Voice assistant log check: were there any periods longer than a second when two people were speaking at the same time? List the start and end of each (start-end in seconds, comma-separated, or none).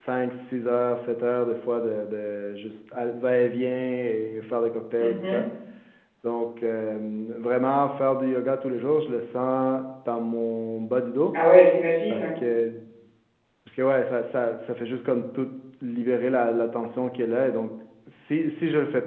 none